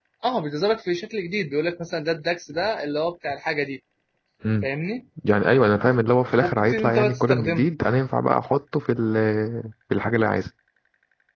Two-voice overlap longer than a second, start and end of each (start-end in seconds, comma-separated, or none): 6.4-7.7